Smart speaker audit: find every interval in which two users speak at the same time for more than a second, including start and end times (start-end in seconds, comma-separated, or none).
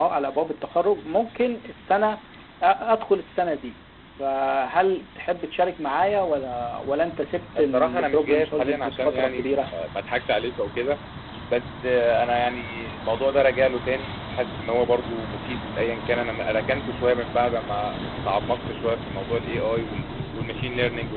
7.6-9.5